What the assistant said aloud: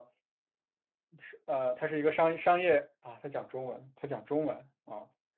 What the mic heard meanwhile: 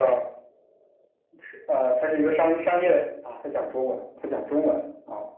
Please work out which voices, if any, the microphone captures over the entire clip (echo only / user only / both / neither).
echo only